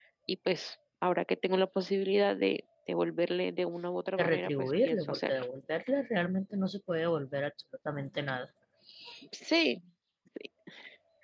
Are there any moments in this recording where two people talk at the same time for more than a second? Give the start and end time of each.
4.2-5.4

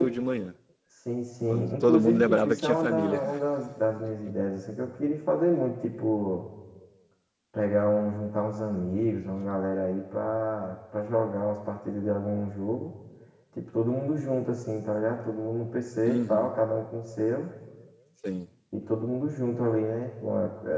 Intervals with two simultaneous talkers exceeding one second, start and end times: 1.5-3.2

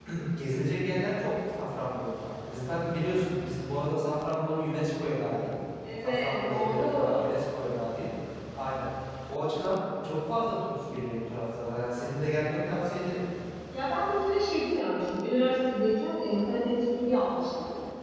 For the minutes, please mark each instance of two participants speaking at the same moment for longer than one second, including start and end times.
6.0-7.3

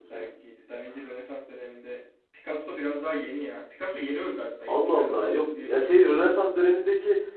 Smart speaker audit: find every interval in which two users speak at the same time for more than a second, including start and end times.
4.7-5.9

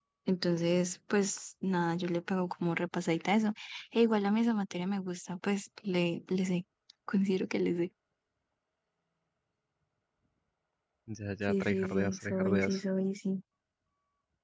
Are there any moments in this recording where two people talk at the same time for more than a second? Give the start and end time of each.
11.5-12.8

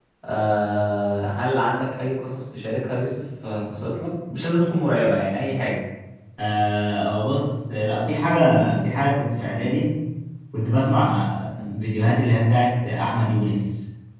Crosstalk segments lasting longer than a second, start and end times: none

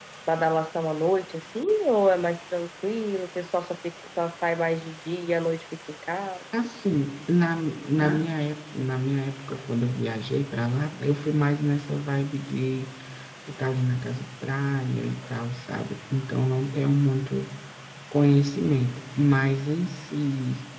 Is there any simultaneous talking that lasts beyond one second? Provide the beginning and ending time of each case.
none

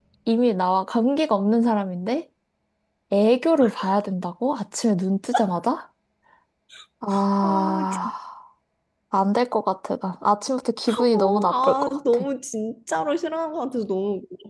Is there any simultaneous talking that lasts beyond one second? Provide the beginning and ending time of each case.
10.9-12.2

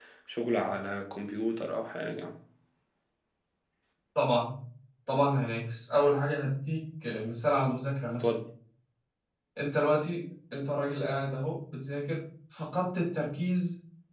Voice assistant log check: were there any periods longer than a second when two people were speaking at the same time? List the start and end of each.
none

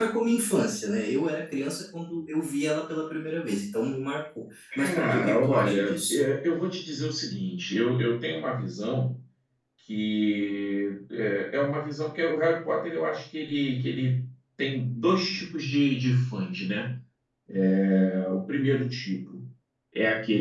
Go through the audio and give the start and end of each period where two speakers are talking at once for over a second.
4.8-6.2

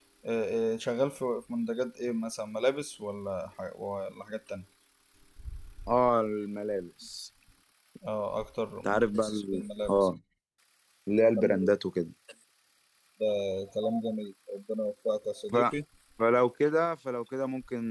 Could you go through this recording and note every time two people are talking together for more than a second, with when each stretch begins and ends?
8.8-10.1

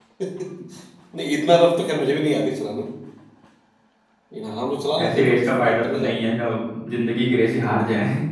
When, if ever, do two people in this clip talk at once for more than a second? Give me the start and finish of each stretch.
5.0-6.2

